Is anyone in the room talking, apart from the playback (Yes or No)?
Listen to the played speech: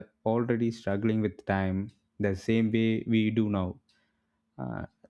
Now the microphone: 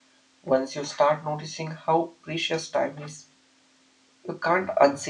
Yes